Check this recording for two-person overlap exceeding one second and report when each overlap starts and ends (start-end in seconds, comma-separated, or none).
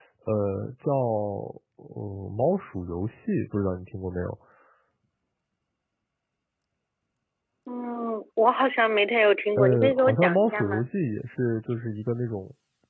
9.6-10.9